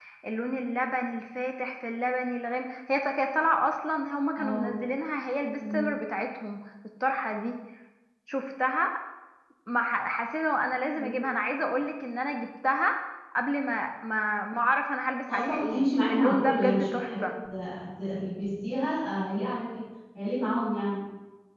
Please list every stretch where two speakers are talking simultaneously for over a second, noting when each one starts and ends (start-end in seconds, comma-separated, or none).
15.3-17.2